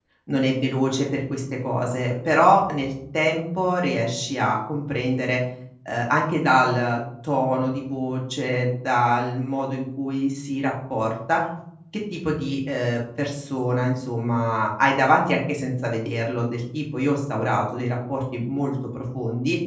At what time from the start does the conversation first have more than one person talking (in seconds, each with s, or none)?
none